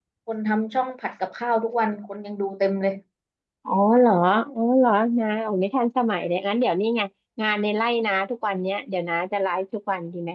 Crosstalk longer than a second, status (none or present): none